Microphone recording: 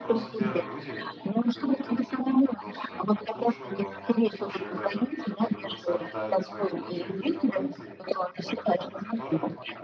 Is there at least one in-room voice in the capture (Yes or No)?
Yes